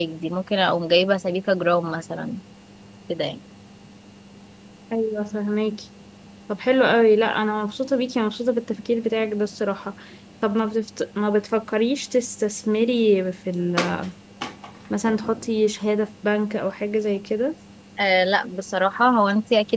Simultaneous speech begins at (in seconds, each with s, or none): none